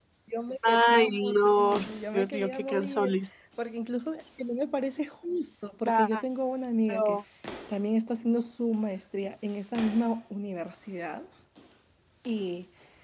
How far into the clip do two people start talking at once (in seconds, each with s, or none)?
0.7 s